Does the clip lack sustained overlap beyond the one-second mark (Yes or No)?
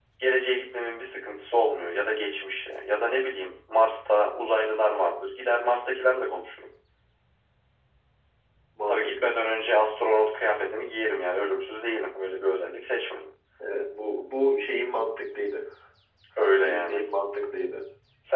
Yes